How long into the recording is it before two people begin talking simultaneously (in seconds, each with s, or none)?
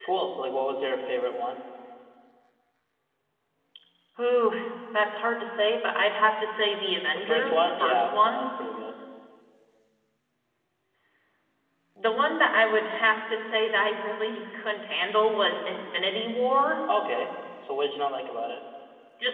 7.1 s